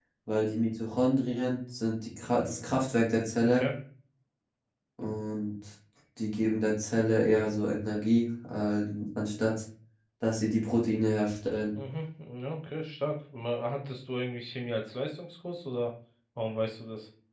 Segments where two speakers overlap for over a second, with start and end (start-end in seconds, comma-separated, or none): none